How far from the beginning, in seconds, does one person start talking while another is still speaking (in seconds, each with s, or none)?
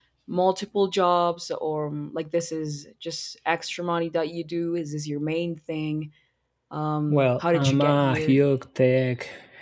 7.1 s